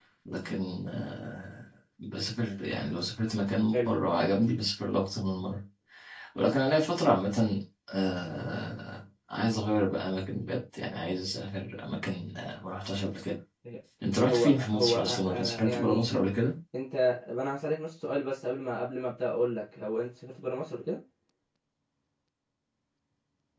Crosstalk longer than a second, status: present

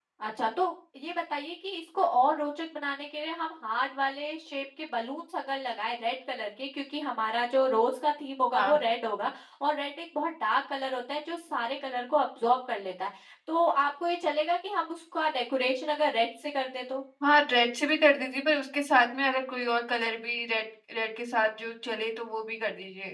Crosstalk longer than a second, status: none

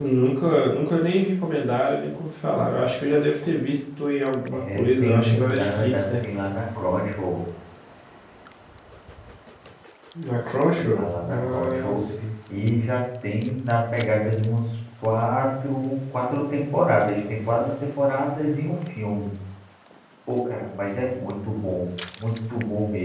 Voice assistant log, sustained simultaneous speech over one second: present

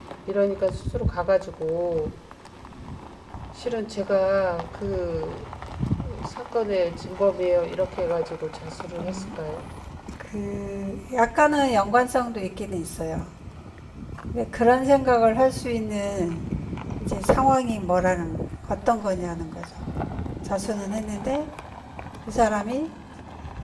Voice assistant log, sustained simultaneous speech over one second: none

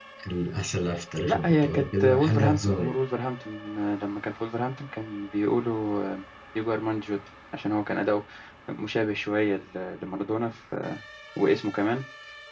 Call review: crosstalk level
present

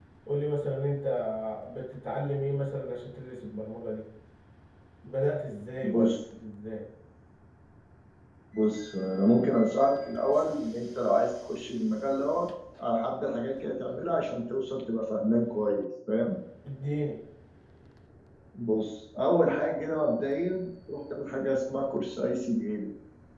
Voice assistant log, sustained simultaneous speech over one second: none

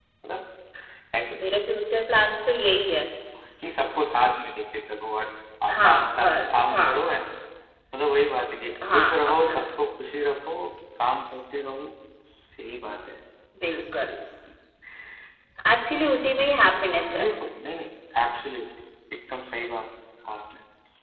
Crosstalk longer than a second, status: present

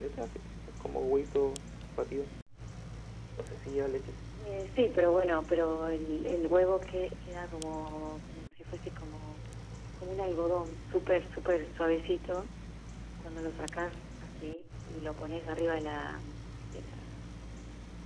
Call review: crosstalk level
none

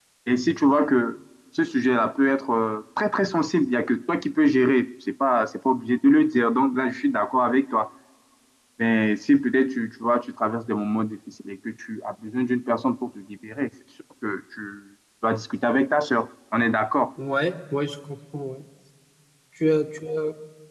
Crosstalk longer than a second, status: none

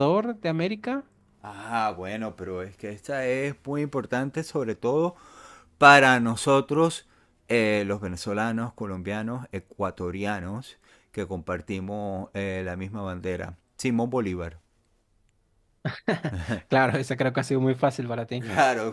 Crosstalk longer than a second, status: none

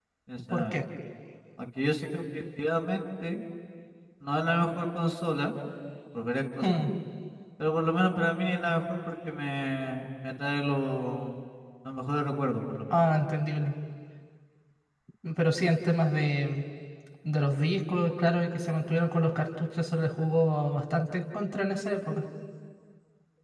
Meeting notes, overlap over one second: none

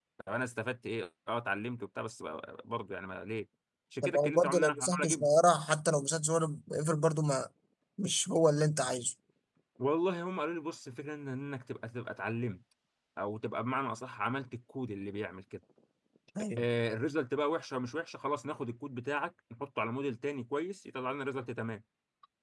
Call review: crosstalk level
present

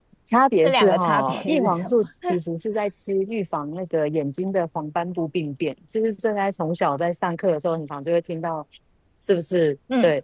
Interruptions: present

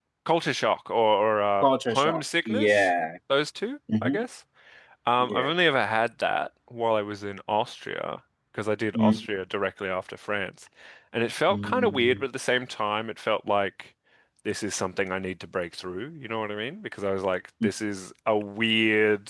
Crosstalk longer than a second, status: present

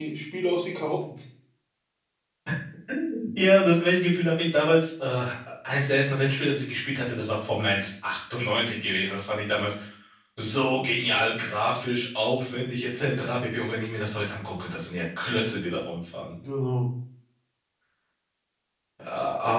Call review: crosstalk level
none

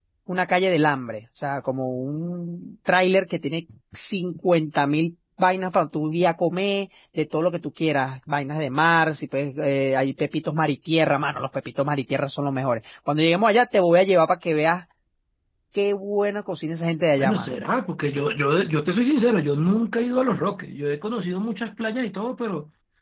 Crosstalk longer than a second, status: none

